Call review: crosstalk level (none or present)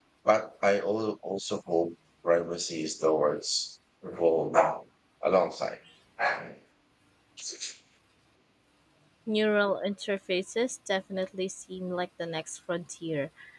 none